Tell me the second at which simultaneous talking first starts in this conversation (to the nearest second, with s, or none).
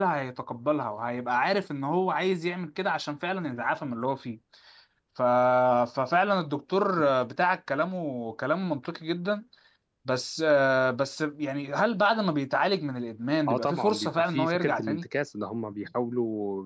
13 s